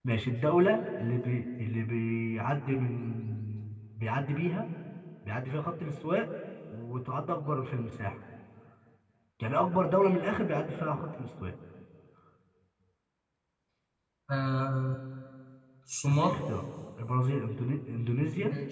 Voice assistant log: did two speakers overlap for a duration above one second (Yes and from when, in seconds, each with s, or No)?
No